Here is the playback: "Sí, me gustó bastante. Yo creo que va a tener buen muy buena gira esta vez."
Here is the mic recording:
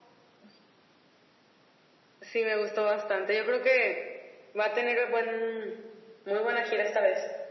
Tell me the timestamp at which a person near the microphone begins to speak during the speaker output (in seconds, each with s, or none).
none